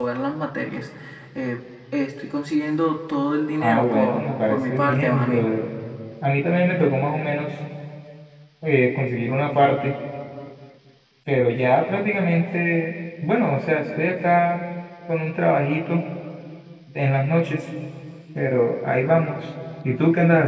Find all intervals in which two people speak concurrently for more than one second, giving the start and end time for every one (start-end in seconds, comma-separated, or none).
3.6-5.5